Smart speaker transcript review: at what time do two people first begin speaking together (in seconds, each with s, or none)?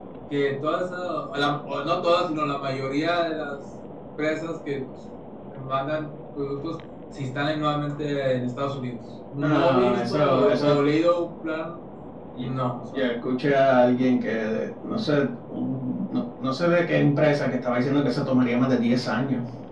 9.4 s